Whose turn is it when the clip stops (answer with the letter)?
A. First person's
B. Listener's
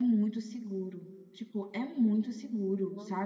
A